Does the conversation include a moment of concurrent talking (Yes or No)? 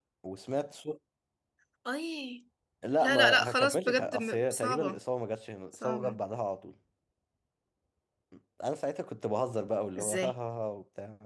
Yes